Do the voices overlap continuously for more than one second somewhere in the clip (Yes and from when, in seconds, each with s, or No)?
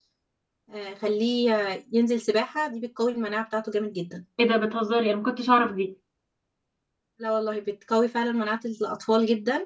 No